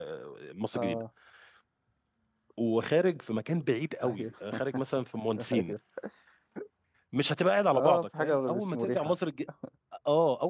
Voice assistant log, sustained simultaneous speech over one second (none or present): present